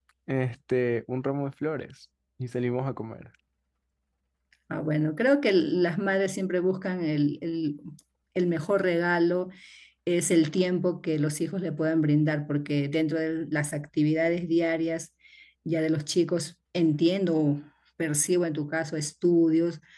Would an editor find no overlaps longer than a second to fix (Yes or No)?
Yes